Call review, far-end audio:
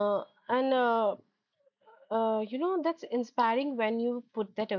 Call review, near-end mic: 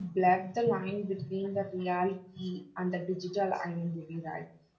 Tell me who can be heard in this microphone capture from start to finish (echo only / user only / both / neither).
user only